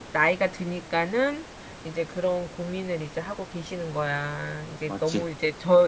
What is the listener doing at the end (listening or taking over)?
listening